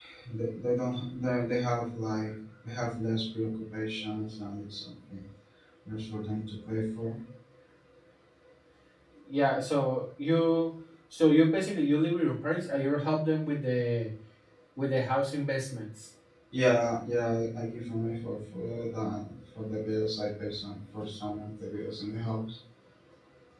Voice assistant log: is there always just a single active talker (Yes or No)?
Yes